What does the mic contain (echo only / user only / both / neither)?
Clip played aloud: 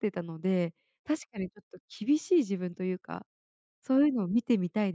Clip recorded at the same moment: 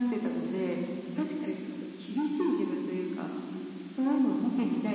echo only